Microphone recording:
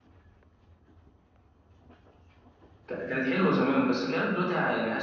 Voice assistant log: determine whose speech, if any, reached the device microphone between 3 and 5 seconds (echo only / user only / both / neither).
user only